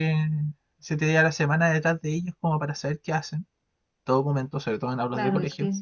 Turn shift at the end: Yes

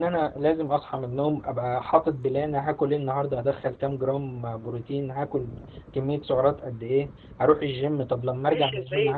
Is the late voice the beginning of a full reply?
Yes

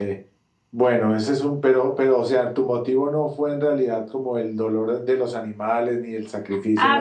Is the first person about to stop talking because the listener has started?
Yes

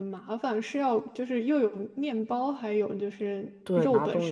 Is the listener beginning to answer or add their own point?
Yes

